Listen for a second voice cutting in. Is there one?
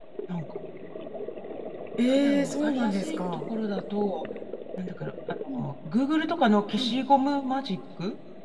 Yes, from 2.1 s

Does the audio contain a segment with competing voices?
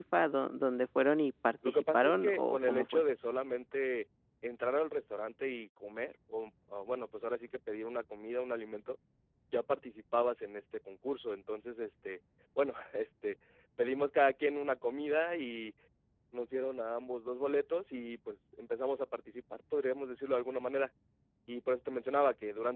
Yes, from 1.6 s

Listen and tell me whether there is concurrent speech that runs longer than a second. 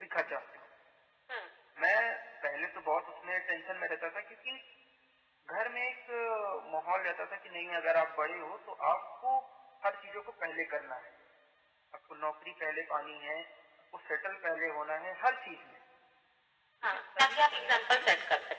Yes, from 16.8 s

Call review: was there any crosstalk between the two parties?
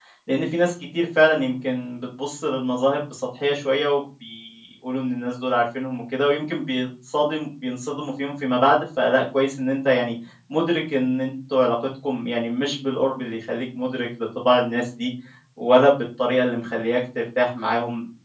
No

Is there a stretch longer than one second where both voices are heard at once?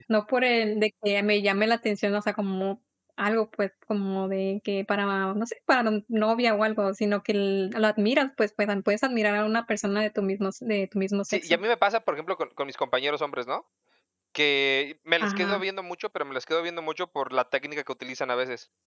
No

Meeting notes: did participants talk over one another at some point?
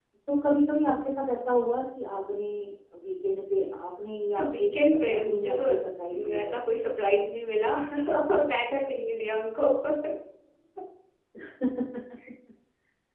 Yes, from 4.3 s

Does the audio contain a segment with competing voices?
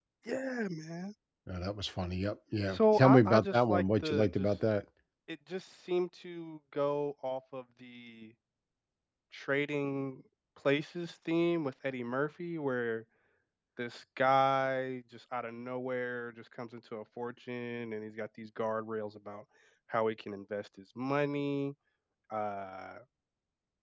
Yes, from 2.7 s

